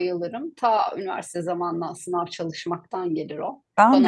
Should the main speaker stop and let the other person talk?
Yes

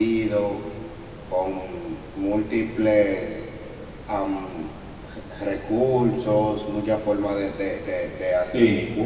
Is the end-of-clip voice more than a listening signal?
No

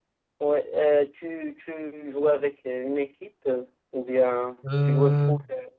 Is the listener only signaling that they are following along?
Yes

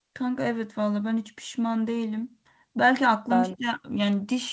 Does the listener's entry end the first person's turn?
No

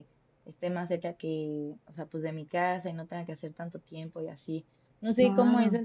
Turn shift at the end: No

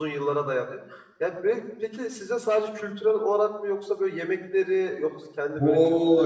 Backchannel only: No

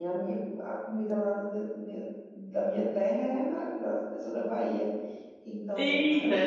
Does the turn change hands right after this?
Yes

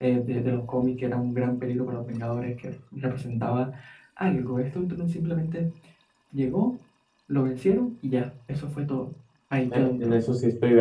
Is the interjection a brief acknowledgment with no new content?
No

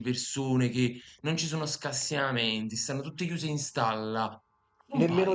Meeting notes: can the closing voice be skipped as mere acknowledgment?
No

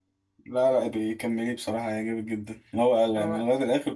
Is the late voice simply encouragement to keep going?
Yes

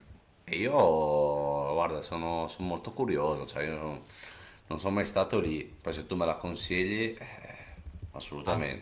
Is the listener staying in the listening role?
No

